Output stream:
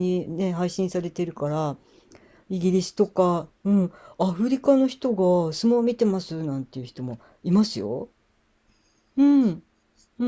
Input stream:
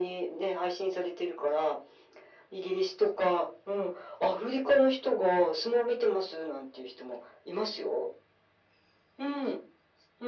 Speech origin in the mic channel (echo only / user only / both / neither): echo only